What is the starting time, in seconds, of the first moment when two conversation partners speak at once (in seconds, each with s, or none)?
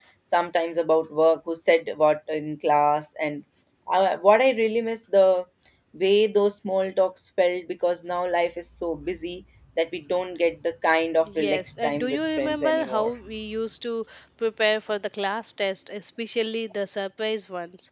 11.3 s